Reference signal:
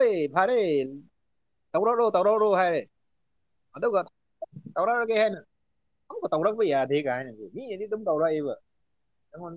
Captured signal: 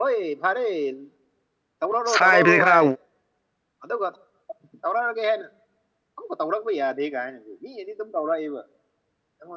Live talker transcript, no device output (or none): ꯁꯥꯏꯕꯁꯤ ꯈꯔ